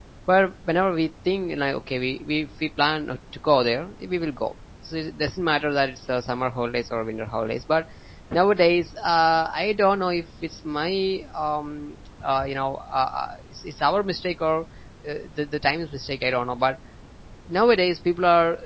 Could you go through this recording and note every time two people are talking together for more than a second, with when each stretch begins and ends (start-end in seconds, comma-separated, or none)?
none